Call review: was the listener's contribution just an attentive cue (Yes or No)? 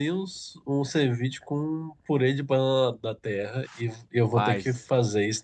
Yes